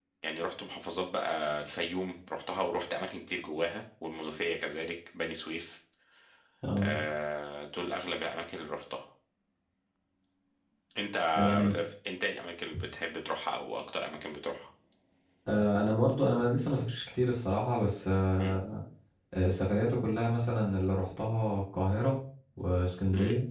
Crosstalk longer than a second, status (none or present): none